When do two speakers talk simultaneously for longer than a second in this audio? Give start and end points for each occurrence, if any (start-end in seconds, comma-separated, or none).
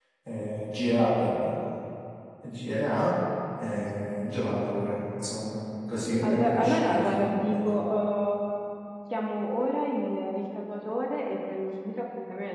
6.2-7.6